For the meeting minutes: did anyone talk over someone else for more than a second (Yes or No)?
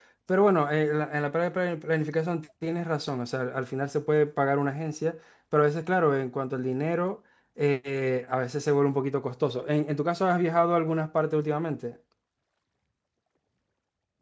No